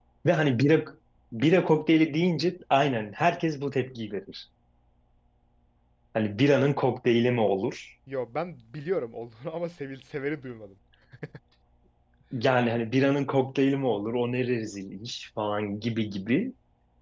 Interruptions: none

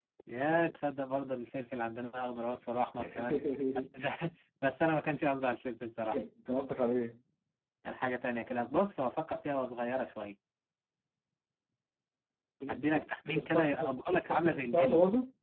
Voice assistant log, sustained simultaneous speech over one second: present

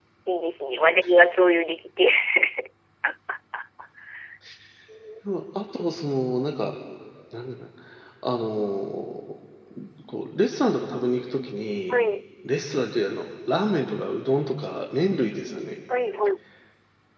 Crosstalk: none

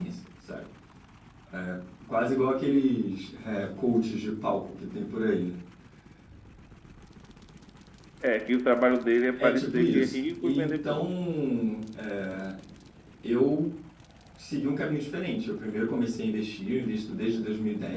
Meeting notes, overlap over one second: present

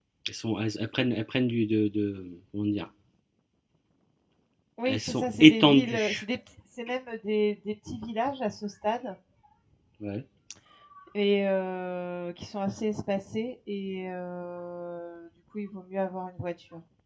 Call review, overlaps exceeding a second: present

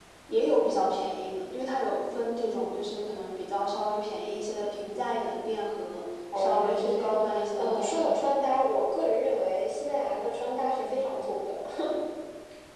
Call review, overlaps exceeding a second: present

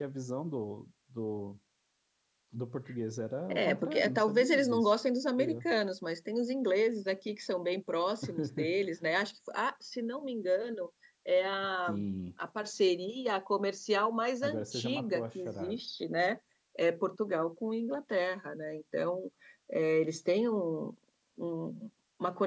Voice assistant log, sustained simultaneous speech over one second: present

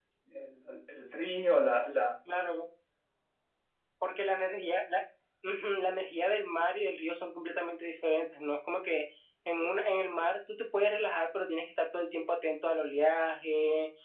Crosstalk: none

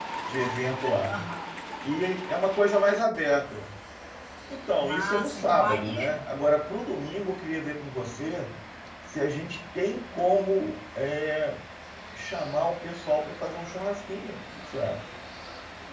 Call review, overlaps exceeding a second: present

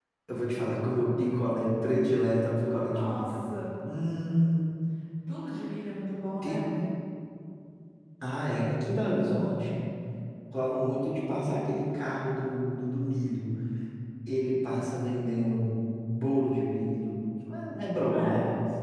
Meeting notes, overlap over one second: none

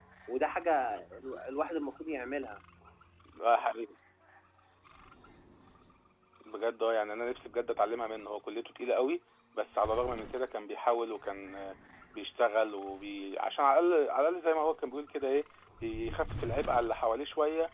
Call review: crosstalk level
none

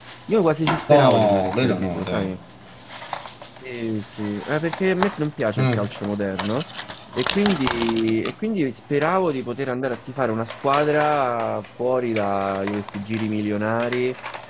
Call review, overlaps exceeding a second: present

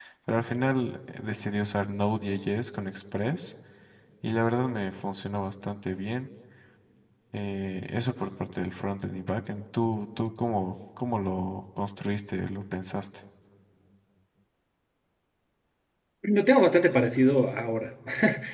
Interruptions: none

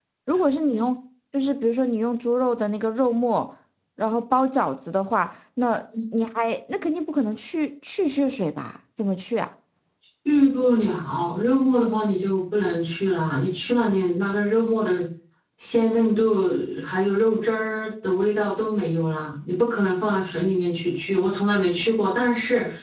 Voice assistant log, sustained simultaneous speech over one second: none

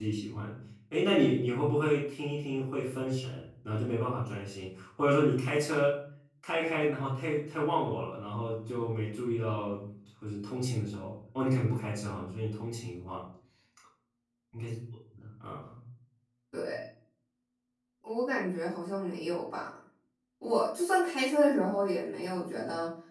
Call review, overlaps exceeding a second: none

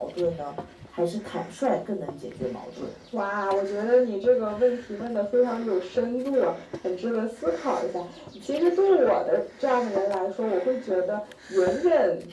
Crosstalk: none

